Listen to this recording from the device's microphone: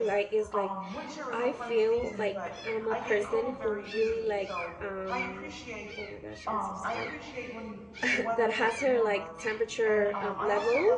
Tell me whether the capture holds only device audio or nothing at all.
No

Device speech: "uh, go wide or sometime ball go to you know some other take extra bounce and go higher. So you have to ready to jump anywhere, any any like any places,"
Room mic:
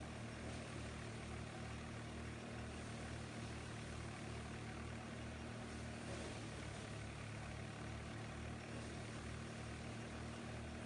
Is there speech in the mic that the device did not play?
No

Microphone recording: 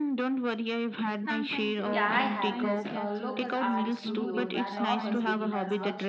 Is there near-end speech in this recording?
Yes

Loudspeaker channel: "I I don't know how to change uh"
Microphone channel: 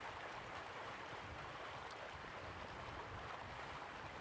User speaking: No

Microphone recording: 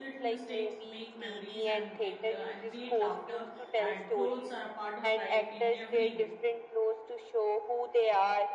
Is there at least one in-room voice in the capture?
Yes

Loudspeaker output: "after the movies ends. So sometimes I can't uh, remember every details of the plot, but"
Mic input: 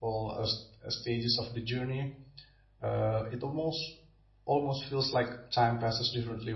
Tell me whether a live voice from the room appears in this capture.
Yes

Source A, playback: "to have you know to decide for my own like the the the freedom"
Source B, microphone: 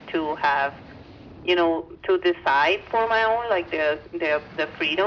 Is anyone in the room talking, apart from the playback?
No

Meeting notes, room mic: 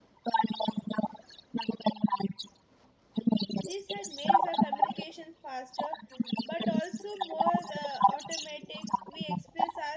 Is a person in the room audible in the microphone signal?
Yes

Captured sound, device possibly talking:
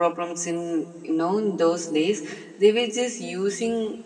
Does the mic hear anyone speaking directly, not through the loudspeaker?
No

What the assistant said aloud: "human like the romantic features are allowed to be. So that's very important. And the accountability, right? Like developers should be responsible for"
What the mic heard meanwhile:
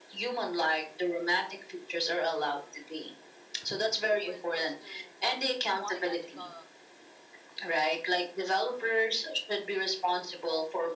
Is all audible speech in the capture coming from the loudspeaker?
No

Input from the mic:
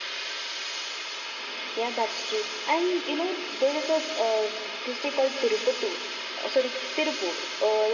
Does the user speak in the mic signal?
No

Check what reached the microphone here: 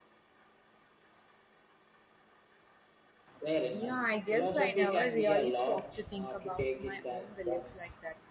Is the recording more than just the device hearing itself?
Yes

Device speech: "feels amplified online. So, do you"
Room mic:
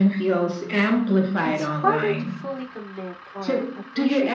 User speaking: Yes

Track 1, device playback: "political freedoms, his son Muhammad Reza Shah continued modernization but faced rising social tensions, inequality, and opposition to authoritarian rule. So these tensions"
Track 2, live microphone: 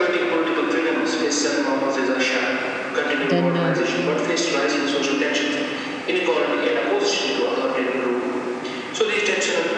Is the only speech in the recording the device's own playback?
No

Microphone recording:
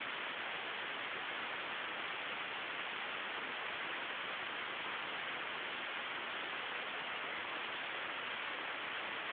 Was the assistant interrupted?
No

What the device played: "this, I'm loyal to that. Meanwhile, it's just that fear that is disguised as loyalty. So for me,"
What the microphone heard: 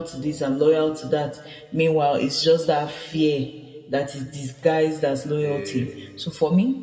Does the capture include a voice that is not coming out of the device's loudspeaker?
Yes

